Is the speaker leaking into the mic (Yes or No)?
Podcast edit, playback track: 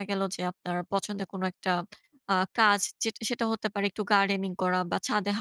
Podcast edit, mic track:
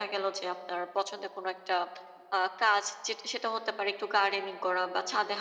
Yes